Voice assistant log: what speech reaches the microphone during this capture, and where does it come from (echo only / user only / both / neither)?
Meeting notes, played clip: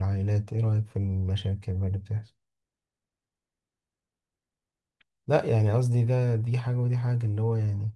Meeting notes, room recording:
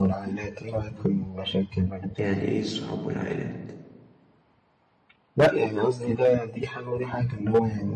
both